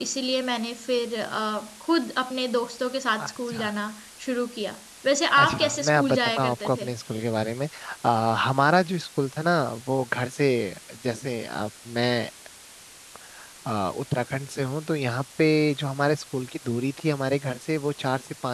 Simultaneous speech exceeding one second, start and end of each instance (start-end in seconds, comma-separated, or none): 5.4-6.9